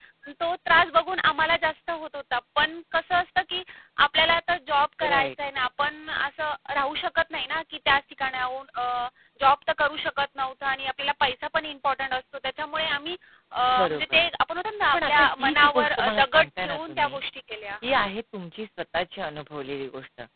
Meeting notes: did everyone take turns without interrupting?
No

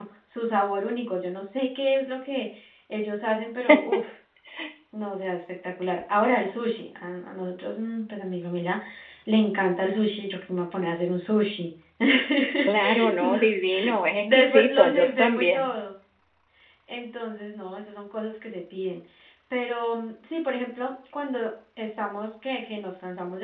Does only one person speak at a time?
No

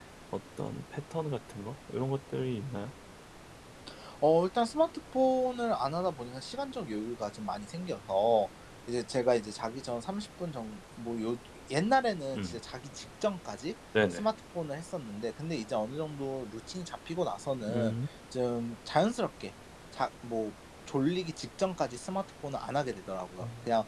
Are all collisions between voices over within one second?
Yes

